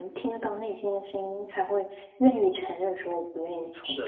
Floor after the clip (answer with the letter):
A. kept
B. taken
B